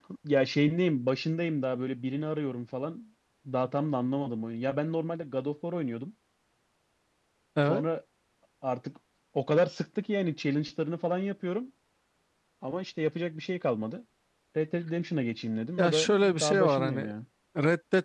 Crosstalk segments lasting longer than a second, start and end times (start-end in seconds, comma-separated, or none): 15.8-17.1